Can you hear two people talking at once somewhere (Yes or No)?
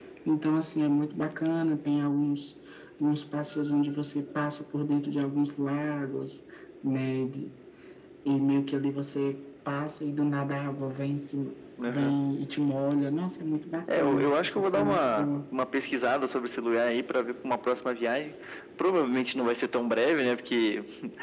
Yes